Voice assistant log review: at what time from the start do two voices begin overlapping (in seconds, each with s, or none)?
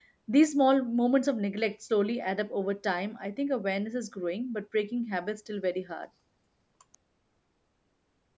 none